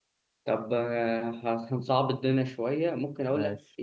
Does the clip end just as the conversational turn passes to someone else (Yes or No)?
No